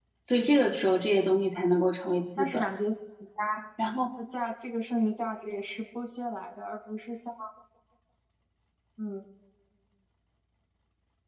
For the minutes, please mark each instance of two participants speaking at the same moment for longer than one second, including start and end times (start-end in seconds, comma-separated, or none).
none